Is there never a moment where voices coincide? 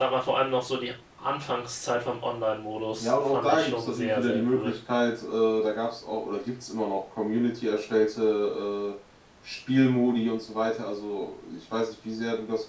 No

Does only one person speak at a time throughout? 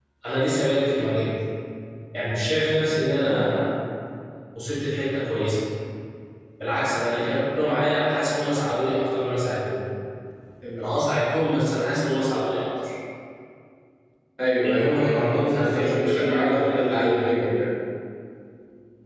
No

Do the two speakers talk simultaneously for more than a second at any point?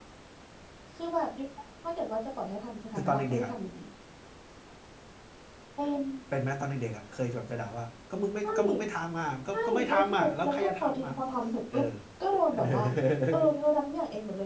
Yes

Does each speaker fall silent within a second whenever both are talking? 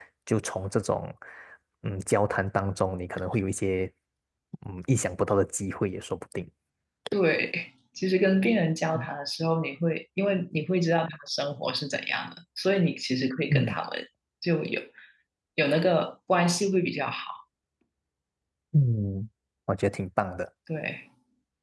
Yes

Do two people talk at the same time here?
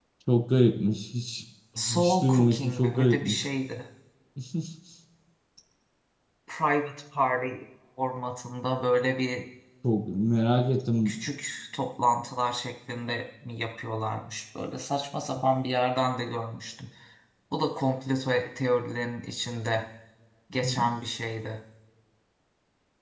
Yes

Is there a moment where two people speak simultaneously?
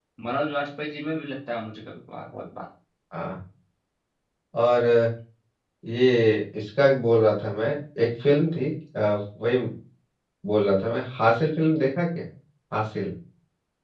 No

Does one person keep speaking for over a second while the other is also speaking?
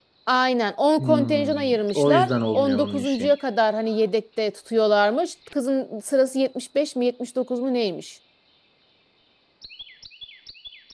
Yes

